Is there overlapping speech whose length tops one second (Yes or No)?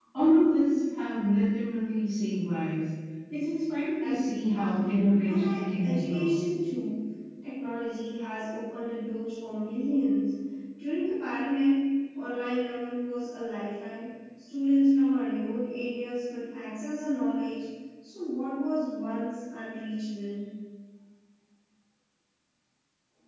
Yes